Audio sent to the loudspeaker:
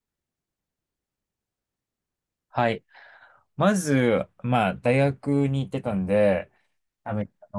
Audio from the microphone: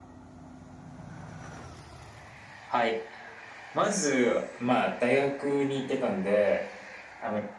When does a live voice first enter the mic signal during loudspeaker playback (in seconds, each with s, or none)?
none